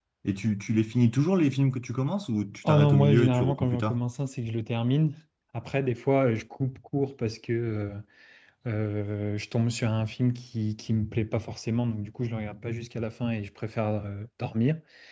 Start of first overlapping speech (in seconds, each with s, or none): 2.6 s